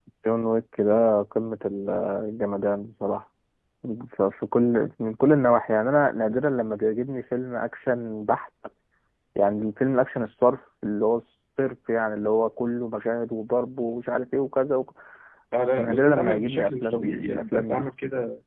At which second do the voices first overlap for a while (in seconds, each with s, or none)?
15.8 s